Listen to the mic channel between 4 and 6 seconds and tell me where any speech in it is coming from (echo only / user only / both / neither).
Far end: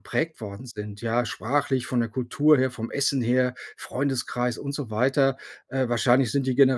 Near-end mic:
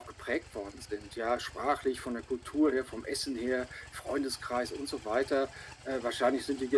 echo only